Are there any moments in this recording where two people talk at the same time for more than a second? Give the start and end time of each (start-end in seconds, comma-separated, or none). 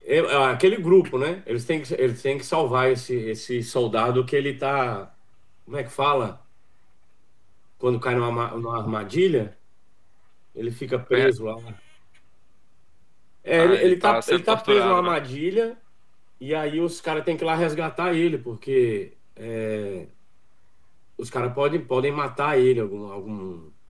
13.5-15.1